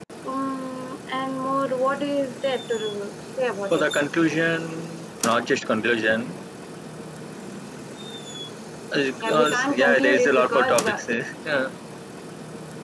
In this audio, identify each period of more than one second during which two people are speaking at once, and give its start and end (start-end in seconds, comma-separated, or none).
9.2-11.0